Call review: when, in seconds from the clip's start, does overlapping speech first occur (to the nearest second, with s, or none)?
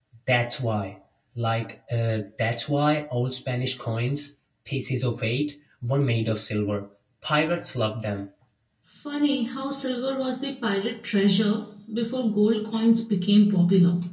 none